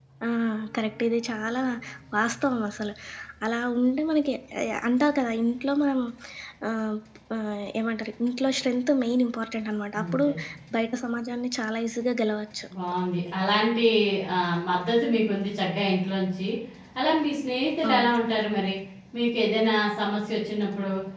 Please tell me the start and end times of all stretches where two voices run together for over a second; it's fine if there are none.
none

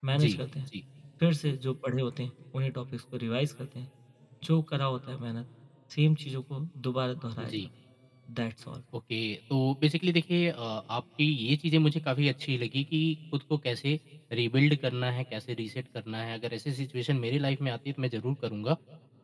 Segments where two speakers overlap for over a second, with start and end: none

